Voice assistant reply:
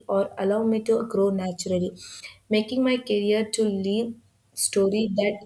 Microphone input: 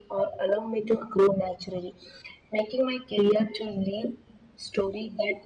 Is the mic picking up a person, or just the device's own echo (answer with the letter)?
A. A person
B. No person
B